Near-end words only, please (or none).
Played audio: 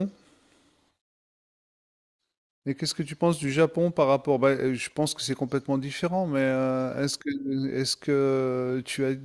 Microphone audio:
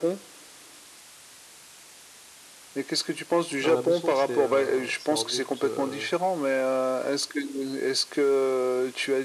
Alors la mousson, c'est euh, c'est en août, euh,